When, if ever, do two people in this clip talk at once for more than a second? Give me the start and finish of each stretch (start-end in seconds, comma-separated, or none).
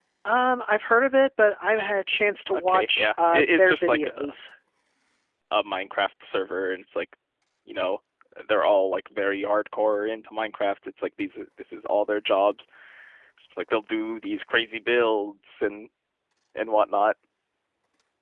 2.5-4.1